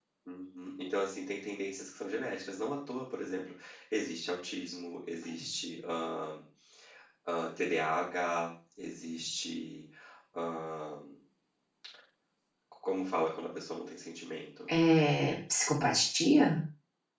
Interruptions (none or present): none